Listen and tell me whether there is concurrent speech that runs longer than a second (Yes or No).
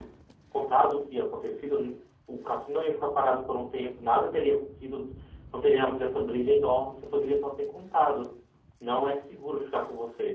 No